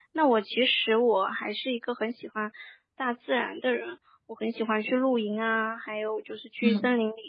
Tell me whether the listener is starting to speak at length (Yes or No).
No